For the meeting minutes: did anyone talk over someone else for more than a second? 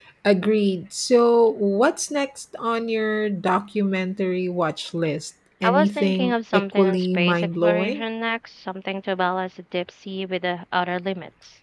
Yes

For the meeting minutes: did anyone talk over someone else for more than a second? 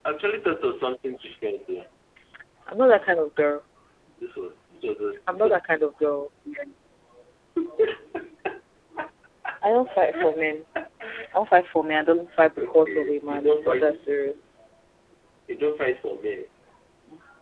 Yes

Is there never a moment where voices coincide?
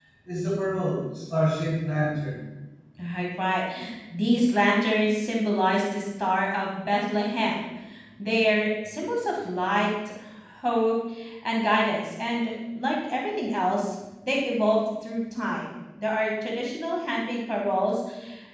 Yes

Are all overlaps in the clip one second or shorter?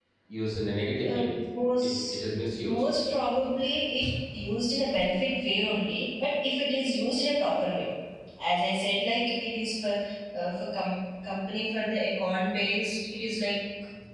Yes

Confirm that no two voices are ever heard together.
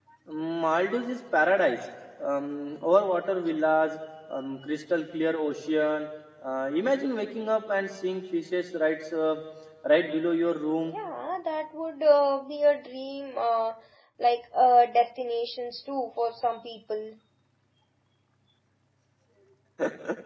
Yes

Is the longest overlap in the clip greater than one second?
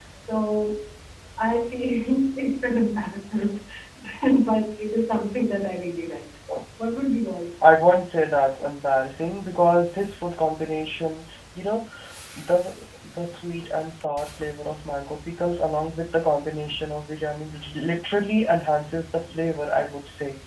No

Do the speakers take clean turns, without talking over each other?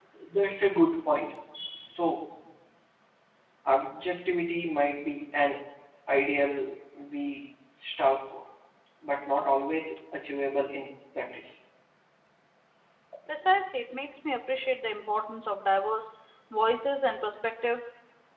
Yes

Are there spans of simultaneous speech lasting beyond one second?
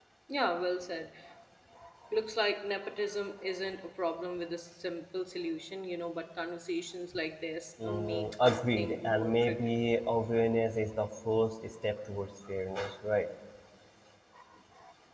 Yes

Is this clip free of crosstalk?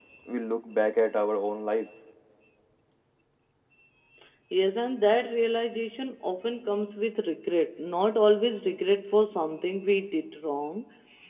Yes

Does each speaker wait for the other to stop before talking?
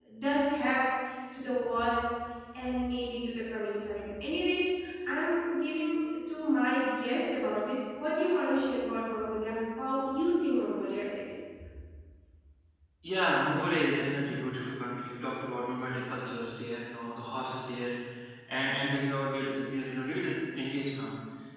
Yes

